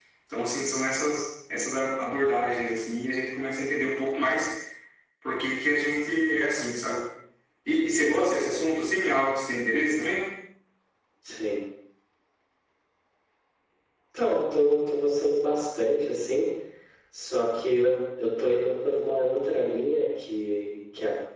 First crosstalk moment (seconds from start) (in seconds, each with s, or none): none